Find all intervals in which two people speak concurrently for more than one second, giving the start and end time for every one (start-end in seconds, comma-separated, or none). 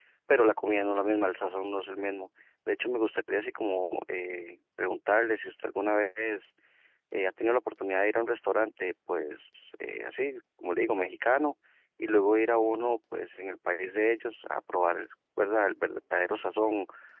none